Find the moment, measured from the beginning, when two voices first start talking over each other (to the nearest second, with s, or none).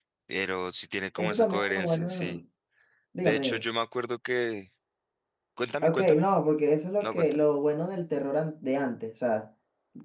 1 s